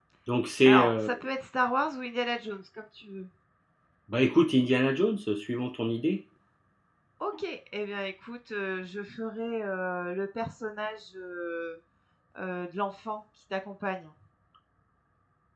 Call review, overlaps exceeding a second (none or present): none